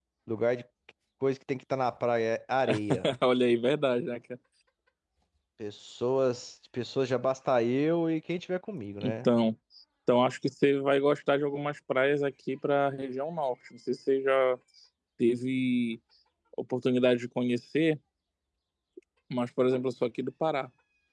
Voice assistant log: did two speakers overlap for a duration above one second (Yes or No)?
No